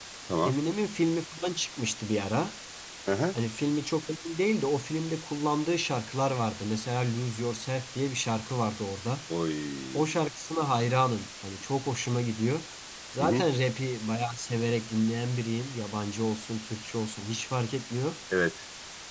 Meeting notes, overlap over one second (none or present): none